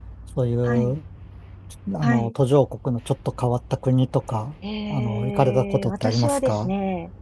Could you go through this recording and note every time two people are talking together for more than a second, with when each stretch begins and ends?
4.9-6.7

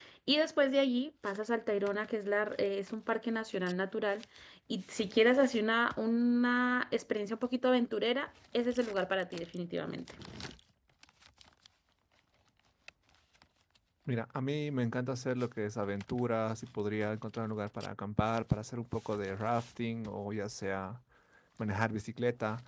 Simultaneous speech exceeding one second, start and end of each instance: none

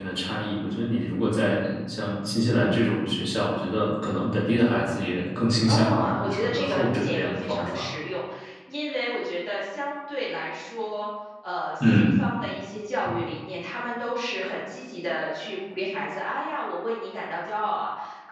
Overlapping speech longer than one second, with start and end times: 5.7-7.9

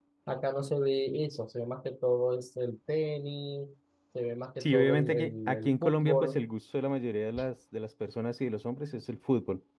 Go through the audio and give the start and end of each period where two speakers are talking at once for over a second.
4.6-6.5

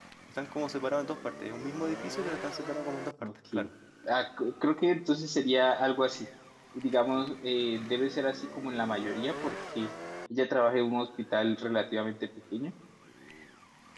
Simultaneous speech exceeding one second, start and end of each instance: none

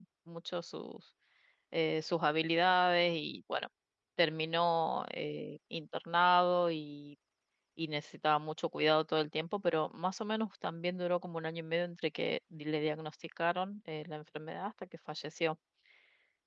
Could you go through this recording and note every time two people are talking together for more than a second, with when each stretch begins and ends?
none

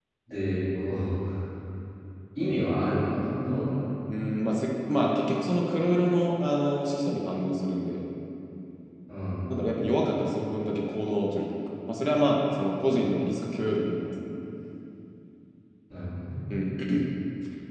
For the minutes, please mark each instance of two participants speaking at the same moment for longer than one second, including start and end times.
none

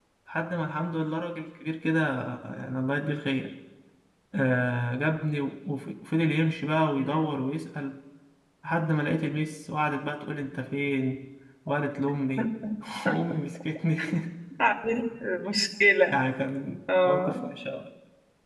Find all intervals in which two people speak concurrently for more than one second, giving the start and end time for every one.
none

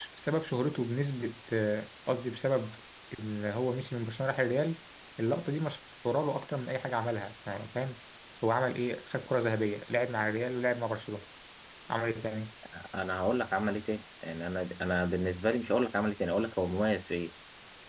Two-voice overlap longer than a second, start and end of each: none

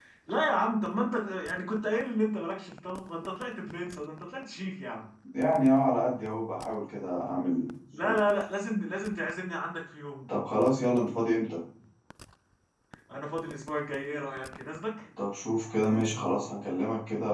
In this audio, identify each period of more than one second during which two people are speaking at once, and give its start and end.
none

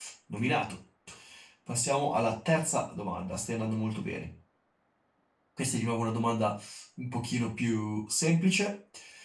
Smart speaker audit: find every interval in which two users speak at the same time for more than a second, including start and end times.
none

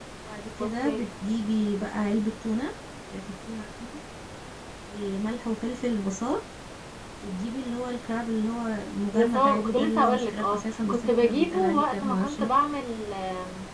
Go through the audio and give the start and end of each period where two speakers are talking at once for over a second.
9.1-12.5

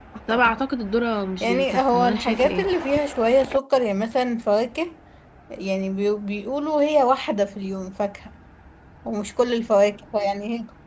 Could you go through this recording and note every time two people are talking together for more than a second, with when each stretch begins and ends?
1.4-2.7

